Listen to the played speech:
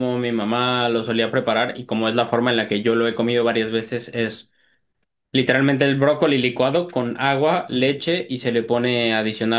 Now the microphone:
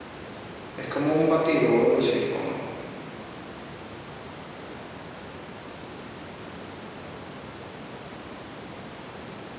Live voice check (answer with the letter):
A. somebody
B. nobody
A